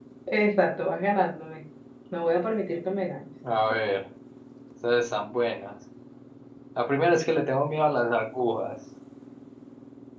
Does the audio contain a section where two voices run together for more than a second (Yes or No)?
No